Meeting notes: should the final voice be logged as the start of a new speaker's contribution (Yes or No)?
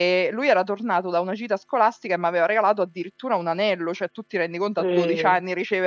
No